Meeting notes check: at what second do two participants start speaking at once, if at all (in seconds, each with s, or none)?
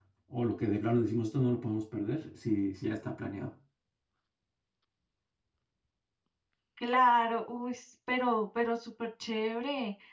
none